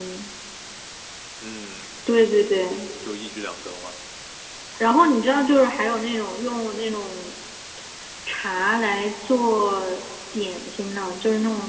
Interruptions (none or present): none